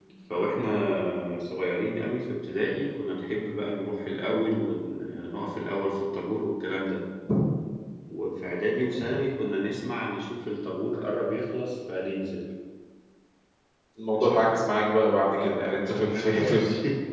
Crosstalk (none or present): present